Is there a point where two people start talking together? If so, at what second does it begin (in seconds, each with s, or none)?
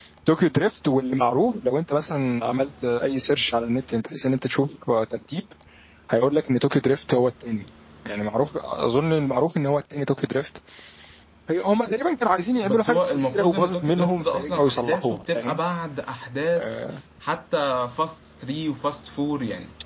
12.6 s